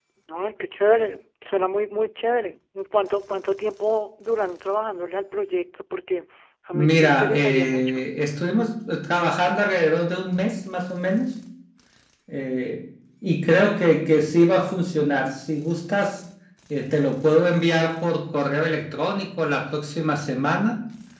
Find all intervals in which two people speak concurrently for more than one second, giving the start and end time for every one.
6.7-8.1

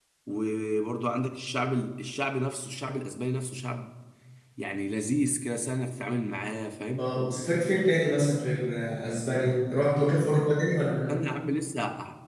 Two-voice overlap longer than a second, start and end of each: none

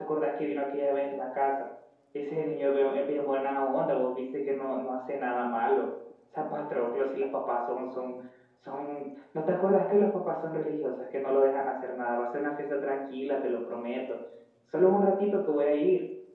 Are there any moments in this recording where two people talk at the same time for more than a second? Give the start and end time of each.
none

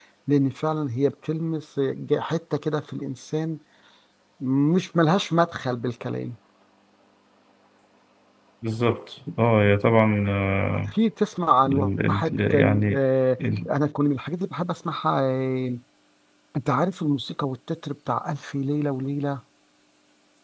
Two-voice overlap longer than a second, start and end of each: 11.7-13.0

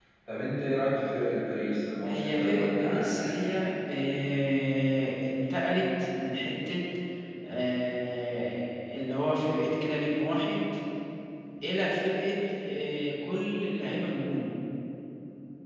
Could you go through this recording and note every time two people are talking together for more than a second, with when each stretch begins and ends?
2.0-3.4

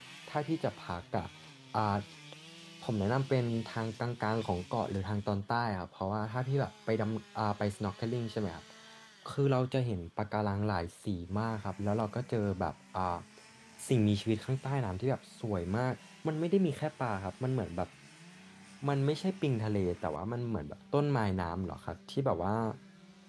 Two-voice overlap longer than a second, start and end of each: none

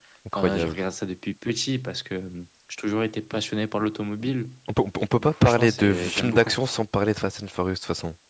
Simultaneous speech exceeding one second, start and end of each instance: 5.2-6.5

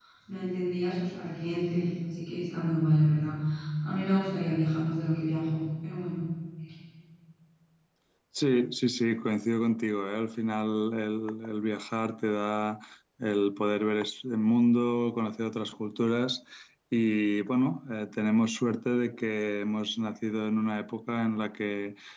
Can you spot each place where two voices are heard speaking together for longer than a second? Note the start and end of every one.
none

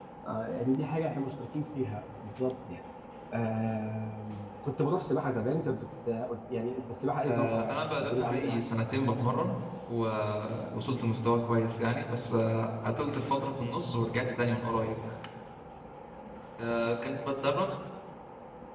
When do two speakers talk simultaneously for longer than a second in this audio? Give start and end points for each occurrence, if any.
7.2-9.0

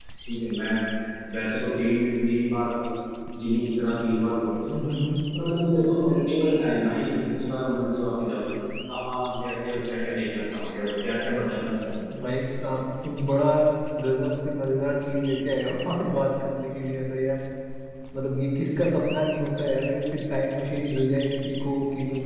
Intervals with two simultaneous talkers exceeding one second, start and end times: none

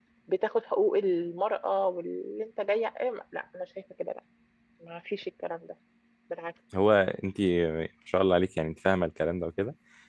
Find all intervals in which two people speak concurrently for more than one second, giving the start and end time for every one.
none

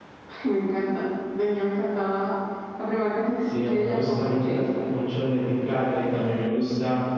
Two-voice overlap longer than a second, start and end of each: 3.4-4.6

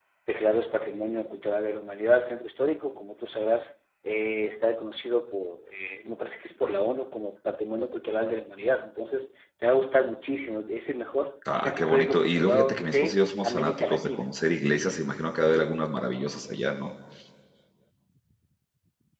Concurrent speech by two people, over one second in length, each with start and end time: 11.6-14.3

